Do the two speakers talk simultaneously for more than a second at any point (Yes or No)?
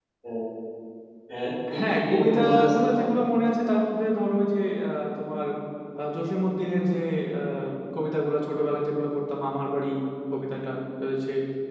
Yes